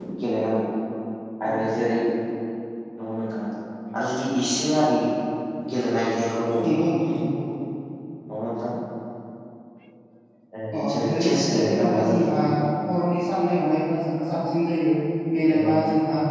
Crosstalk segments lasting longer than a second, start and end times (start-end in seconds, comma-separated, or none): 10.8-12.4